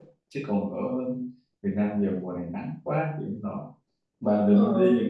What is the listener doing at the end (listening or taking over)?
listening